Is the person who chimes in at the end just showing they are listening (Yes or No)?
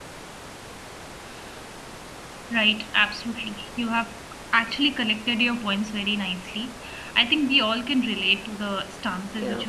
No